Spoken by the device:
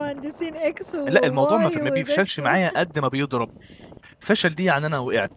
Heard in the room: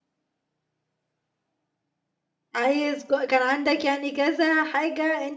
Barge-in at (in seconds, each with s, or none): 2.5 s